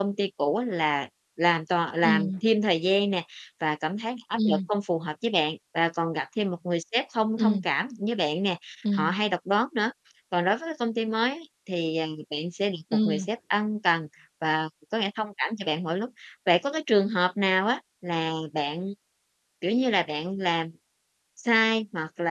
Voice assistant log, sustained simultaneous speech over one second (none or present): none